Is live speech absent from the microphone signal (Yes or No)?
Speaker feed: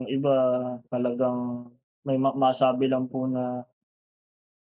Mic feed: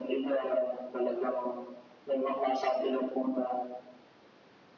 Yes